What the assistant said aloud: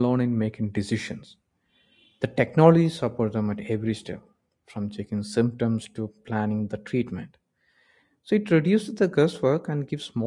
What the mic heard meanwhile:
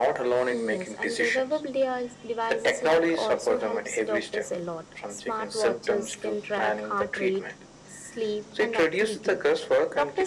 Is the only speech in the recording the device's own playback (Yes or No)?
No